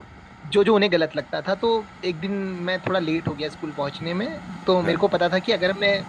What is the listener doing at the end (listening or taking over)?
listening